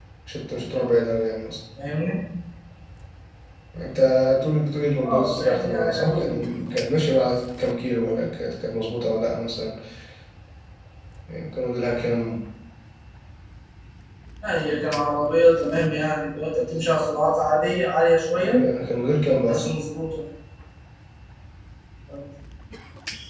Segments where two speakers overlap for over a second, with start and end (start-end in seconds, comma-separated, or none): 5.0-6.3